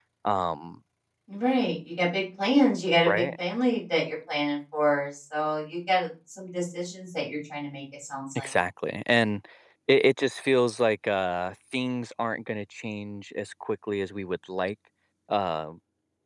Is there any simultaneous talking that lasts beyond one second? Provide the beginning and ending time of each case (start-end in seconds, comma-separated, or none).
none